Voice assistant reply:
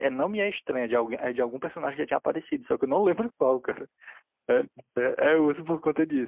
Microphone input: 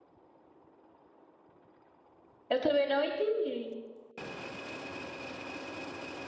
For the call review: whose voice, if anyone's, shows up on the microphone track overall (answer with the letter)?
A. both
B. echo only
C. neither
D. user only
D